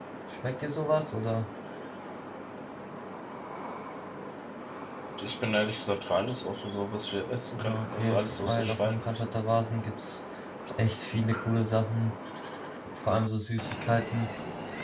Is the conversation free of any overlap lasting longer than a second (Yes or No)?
No